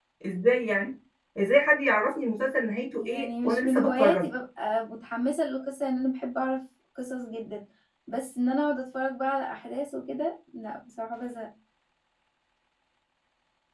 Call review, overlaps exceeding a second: present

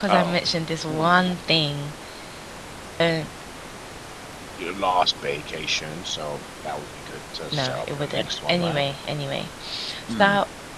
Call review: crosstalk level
present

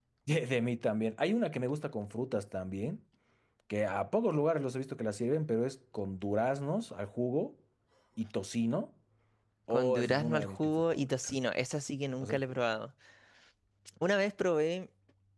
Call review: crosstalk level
present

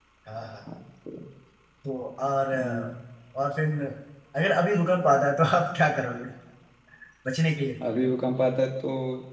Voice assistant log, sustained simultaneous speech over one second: none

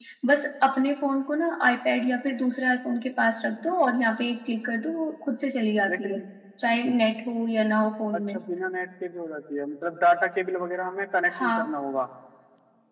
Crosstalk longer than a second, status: none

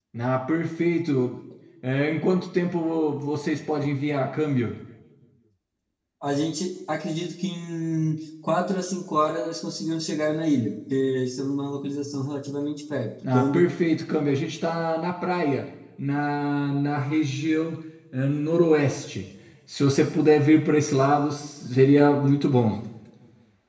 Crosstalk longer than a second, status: none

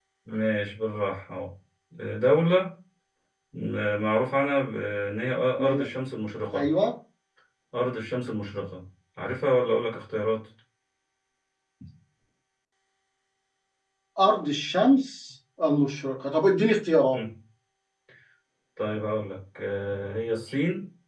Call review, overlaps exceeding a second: none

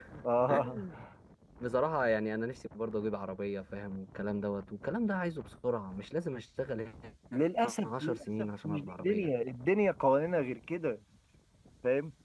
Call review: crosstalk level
present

